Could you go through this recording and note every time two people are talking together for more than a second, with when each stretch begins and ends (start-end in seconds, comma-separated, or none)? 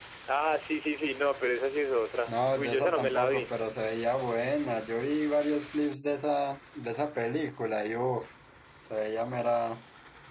2.3-3.5